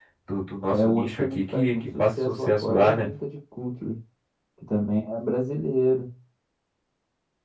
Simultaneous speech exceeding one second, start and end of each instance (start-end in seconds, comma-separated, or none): 0.7-3.1